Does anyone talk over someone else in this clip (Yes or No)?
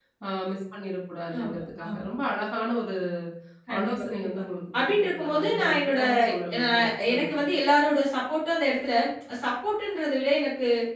Yes